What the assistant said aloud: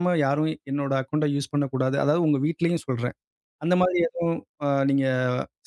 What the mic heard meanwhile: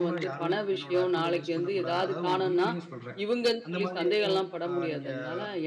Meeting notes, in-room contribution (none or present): present